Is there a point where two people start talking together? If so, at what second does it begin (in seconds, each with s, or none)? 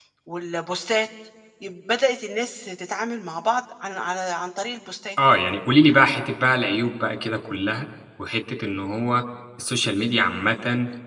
none